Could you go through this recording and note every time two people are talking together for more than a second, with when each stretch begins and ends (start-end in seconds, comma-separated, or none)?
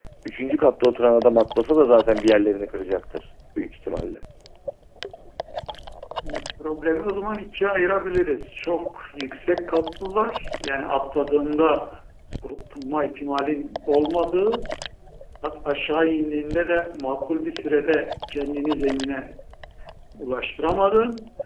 none